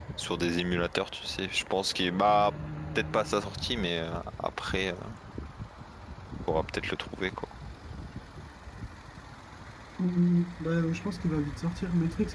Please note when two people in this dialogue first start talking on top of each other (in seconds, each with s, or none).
none